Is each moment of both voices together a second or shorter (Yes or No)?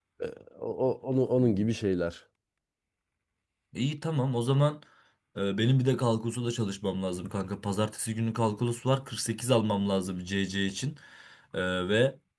Yes